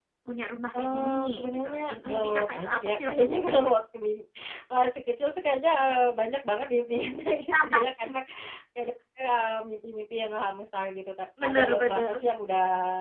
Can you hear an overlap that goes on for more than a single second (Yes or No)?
Yes